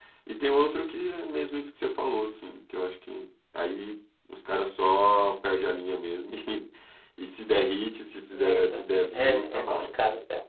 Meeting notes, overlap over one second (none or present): present